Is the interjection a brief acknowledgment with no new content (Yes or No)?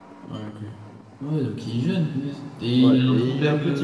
No